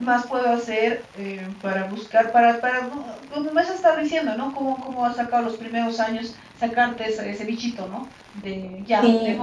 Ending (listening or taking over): listening